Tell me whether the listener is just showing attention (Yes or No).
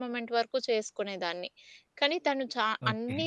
Yes